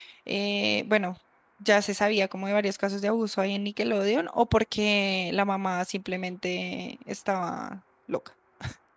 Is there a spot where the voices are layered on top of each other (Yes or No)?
No